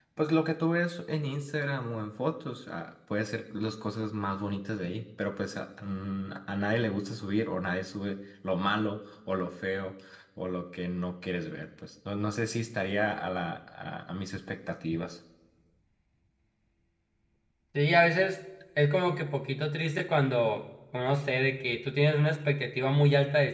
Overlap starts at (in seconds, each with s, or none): none